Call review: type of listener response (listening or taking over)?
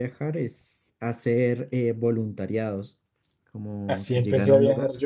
taking over